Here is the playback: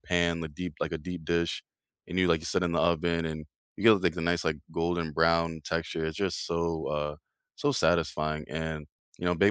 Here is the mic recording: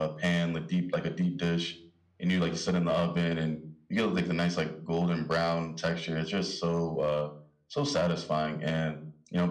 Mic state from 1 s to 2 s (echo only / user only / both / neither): echo only